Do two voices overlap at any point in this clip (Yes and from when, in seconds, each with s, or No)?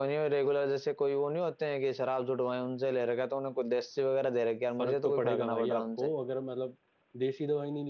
Yes, from 4.8 s